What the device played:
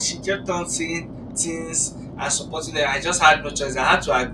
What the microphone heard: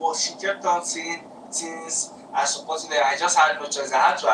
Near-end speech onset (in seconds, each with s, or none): none